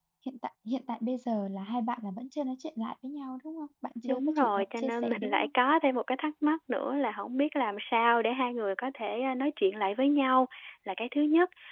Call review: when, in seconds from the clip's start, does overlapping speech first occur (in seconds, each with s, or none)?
4.0 s